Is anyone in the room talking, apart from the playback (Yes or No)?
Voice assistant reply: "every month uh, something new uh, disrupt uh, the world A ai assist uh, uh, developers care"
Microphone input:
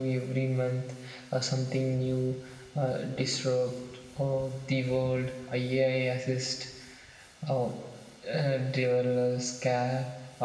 No